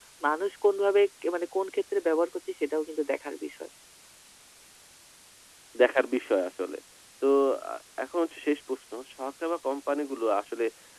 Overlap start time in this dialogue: none

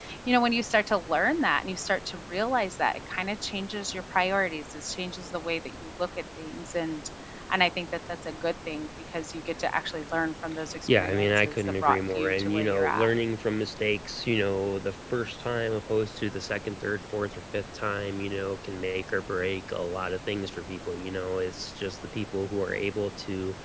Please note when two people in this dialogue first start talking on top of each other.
10.9 s

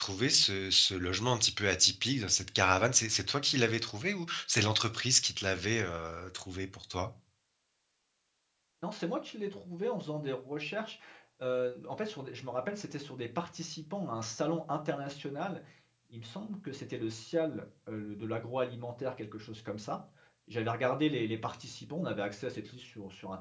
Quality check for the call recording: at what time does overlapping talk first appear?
none

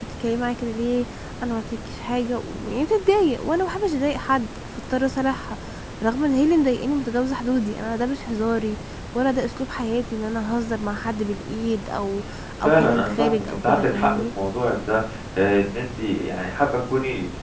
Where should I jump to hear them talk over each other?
12.6 s

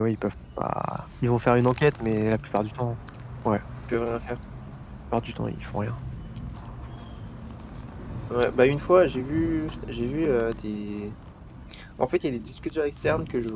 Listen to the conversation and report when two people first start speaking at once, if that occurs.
none

